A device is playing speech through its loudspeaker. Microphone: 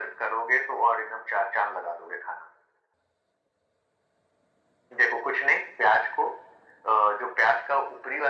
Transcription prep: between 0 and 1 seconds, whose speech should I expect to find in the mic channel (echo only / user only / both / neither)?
echo only